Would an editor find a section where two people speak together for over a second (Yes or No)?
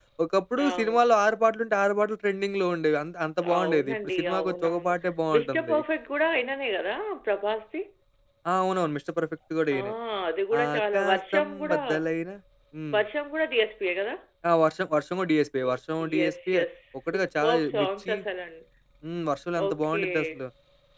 Yes